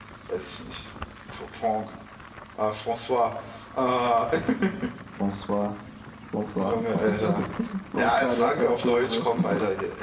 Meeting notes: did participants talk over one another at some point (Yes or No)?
Yes